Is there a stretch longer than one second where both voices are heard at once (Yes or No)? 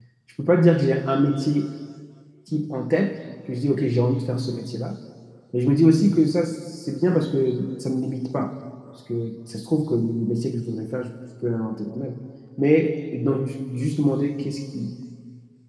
No